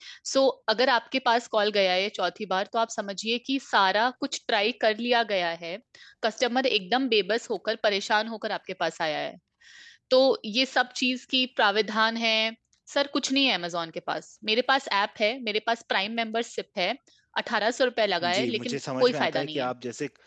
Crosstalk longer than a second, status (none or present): present